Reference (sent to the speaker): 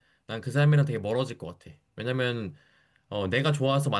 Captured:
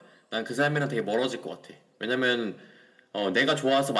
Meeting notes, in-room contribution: none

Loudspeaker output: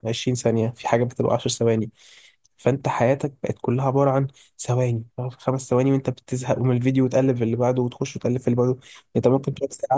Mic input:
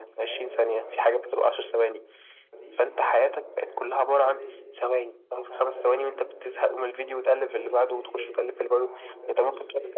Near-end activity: present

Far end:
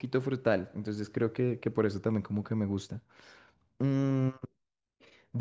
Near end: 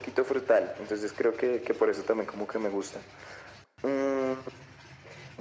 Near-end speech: none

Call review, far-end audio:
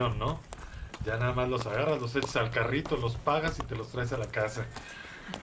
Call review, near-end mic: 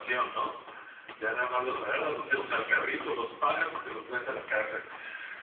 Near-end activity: none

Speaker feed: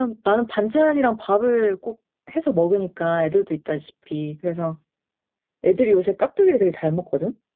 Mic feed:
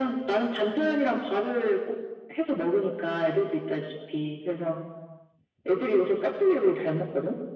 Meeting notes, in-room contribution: none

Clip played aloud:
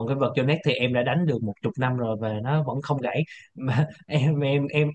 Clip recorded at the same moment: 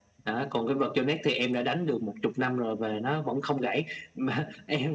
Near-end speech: none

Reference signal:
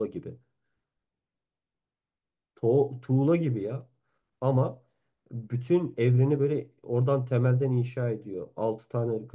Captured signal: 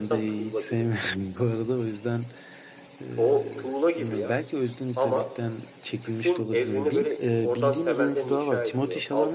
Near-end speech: present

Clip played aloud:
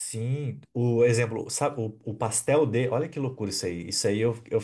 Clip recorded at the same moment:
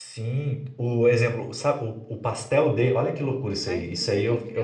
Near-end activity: present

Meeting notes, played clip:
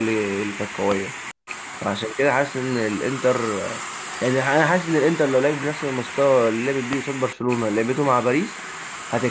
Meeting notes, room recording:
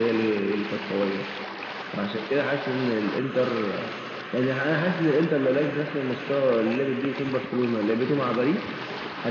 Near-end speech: none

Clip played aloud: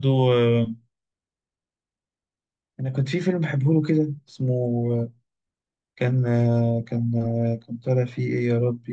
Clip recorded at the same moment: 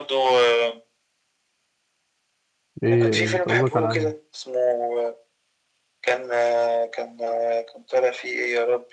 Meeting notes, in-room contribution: present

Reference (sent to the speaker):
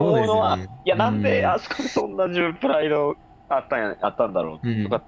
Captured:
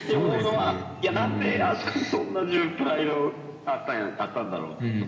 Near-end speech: none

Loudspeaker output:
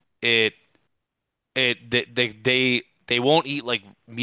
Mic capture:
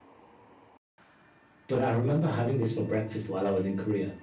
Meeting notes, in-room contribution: present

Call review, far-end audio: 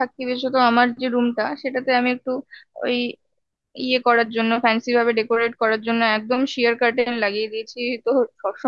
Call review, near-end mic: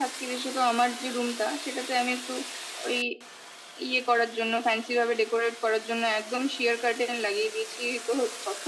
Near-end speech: none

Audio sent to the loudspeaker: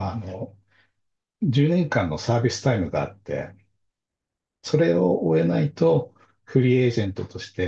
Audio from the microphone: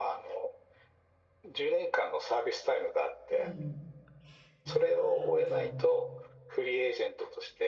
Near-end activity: present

